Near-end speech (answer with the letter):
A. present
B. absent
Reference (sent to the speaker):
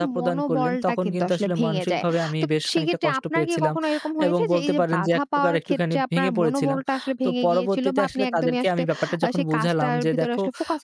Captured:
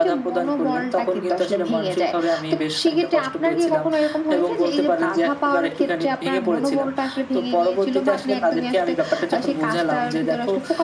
B